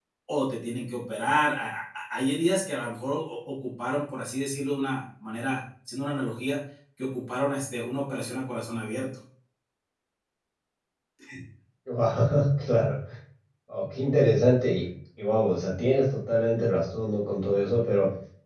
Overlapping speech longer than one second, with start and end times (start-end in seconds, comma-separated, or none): none